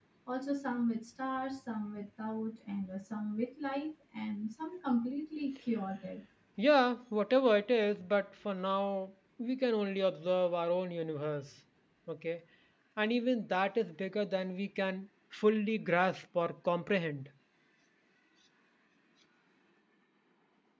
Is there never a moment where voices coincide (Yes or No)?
Yes